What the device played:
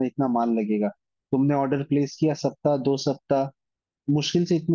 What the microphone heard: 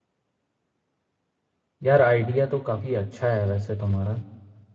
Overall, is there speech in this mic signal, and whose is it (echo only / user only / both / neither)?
user only